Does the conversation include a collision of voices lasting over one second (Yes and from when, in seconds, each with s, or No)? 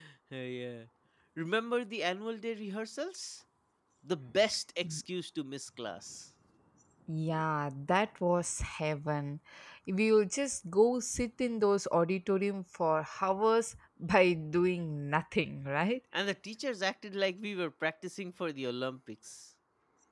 No